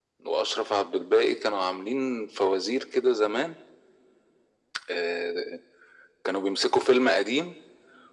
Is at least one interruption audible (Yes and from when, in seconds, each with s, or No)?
No